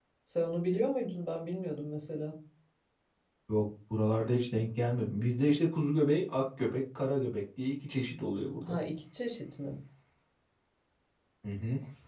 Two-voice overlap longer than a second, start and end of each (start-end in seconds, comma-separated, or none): none